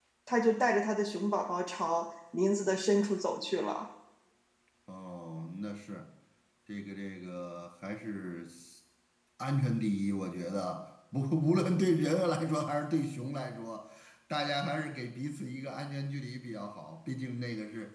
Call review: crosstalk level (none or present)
none